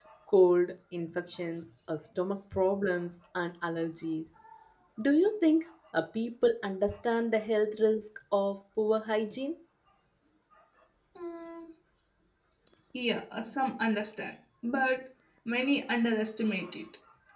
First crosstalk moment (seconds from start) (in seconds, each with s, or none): none